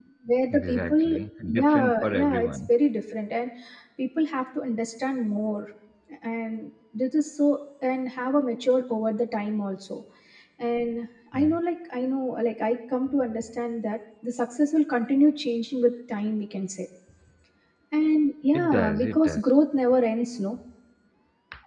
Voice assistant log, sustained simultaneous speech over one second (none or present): present